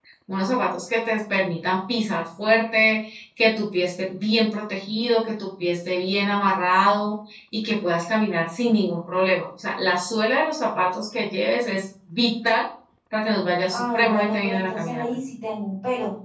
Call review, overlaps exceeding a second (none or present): present